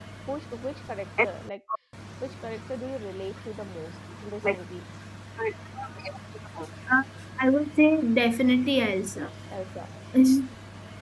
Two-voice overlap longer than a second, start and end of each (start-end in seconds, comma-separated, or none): none